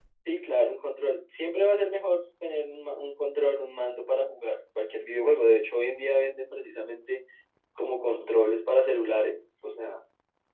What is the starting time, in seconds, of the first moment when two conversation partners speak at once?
none

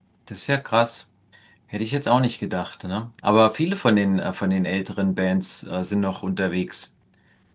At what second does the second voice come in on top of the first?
none

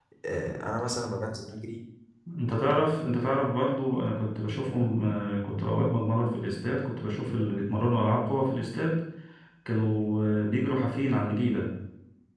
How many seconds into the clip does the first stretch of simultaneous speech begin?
none

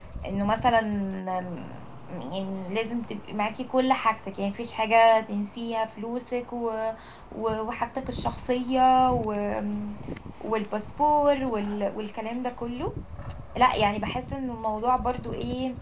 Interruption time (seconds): none

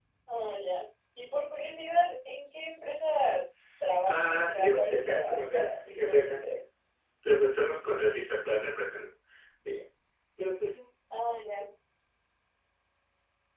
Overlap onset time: 4.1 s

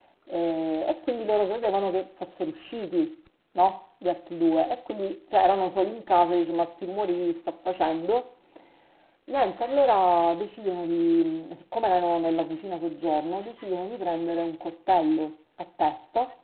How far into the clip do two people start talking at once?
none

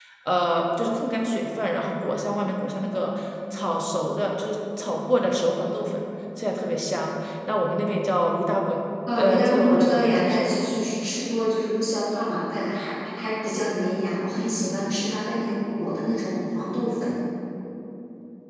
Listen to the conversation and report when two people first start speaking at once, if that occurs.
9.2 s

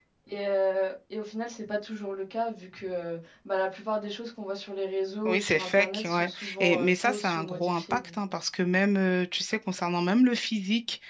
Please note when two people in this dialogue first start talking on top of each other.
5.2 s

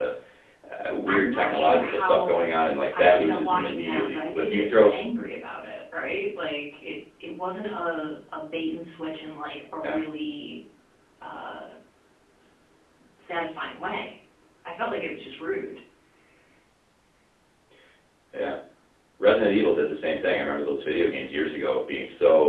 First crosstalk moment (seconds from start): 1.1 s

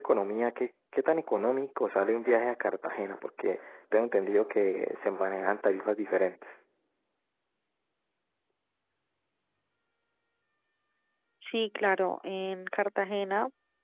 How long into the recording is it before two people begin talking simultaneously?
none

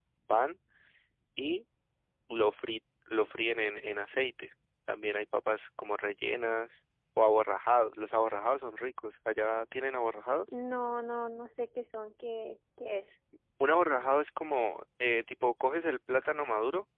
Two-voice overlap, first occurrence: none

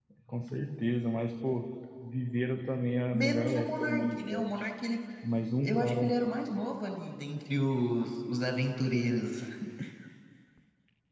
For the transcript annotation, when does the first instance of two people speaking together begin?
3.1 s

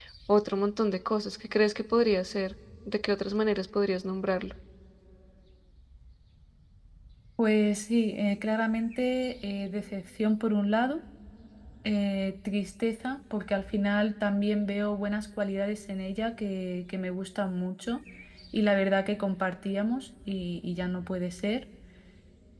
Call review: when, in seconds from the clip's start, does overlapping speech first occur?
none

